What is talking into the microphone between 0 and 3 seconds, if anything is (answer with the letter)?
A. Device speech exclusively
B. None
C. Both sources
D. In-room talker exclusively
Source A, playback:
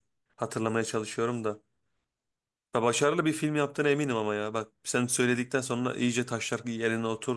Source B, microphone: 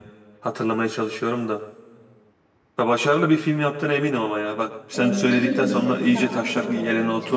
A